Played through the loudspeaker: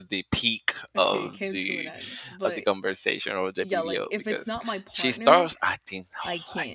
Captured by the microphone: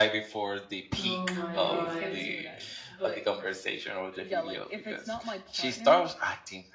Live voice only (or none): Oh my god.